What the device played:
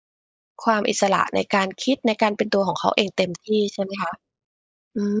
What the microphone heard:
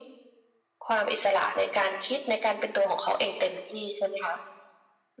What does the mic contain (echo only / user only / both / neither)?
echo only